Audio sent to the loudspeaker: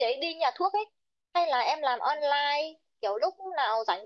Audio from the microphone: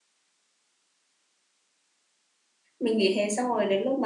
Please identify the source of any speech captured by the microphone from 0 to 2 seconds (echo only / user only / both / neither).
neither